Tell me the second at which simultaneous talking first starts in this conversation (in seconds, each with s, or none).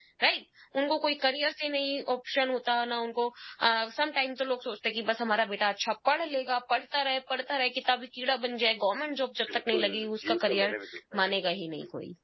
9.5 s